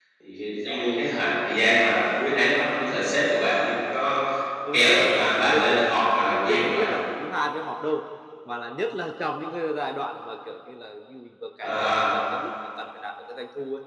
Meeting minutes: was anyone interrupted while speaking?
Yes, from 4.7 s

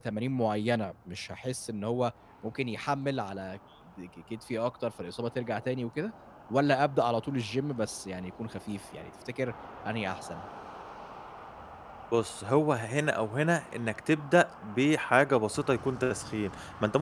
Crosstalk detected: No

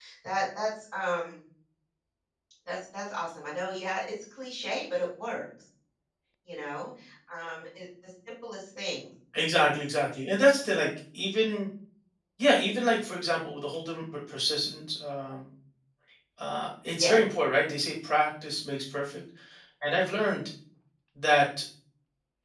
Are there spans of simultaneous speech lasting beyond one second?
No

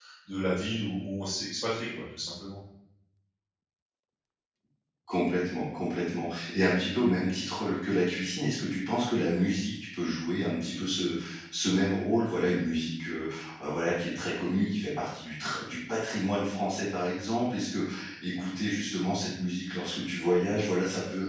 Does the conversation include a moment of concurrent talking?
No

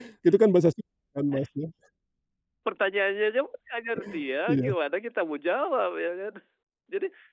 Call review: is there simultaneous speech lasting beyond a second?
No

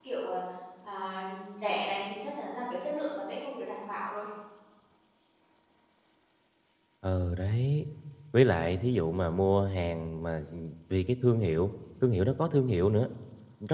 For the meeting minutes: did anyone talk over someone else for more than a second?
No

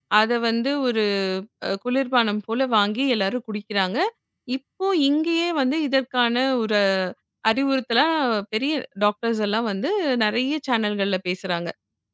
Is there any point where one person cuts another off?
No

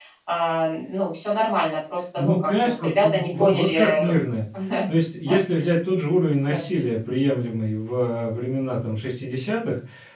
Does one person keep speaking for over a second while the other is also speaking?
Yes, from 2.2 s

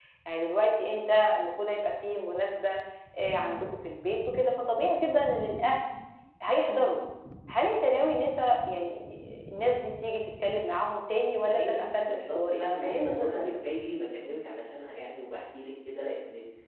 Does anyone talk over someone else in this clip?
Yes, from 11.4 s

